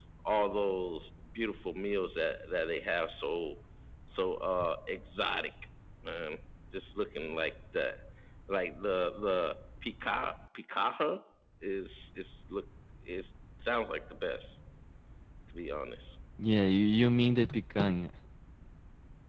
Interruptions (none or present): none